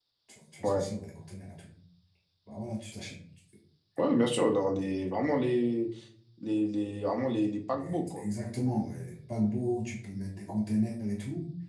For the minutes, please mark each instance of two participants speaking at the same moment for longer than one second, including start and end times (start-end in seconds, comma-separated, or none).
none